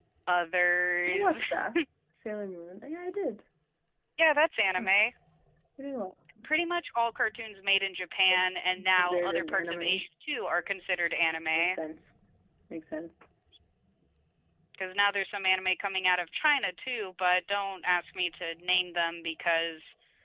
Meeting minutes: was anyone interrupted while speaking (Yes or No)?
Yes